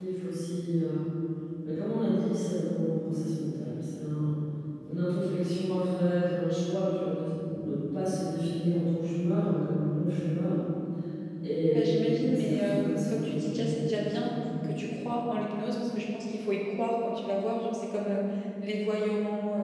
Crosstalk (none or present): present